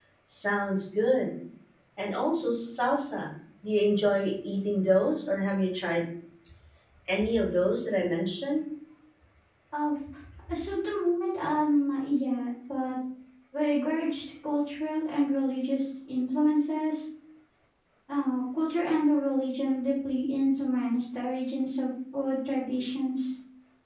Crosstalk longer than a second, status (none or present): none